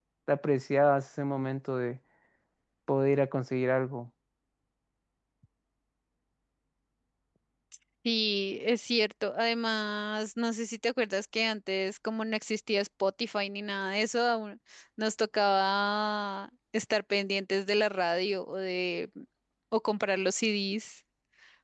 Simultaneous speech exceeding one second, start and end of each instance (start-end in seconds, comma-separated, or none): none